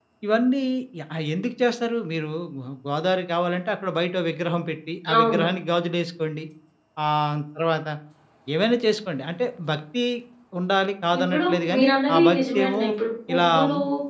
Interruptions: present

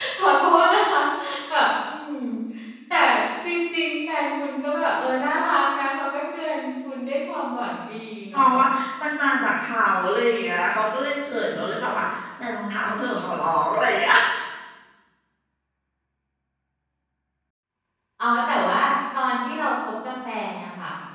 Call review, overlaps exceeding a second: none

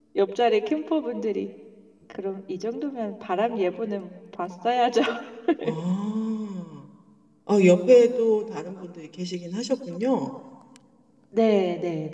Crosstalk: none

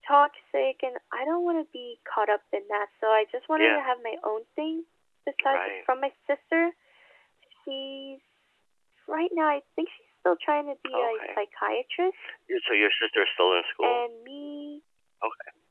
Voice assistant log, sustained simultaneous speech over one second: none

